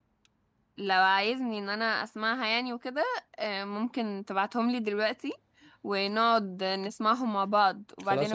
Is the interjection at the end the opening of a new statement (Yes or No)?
Yes